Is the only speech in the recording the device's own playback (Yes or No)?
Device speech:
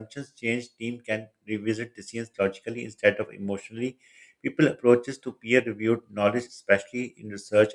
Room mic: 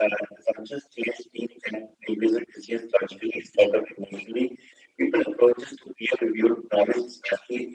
Yes